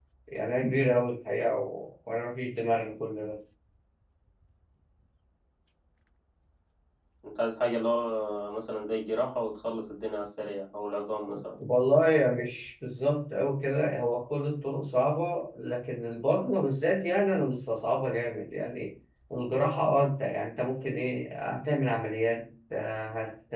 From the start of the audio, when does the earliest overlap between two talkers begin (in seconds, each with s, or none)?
none